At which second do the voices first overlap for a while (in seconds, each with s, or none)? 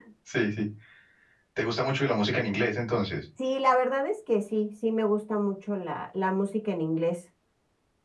none